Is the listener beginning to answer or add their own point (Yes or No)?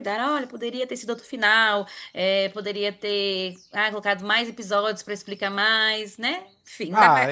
Yes